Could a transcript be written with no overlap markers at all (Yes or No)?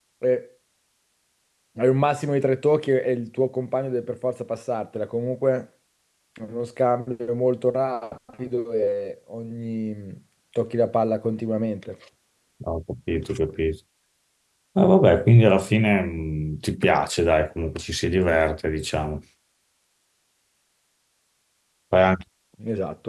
Yes